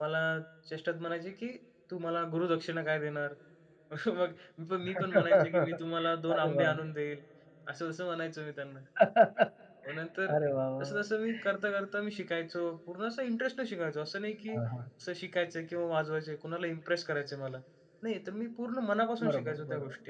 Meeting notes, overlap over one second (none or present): present